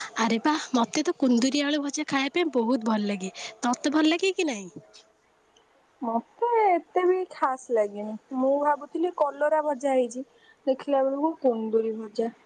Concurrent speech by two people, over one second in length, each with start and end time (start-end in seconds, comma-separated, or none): none